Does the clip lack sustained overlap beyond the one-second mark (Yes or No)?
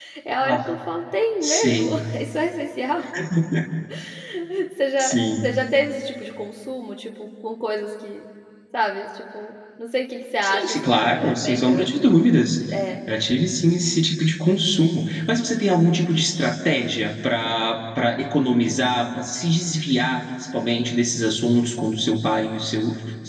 No